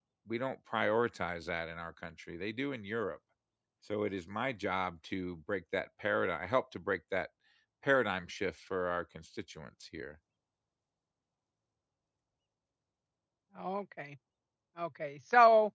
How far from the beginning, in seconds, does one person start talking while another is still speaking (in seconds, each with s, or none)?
none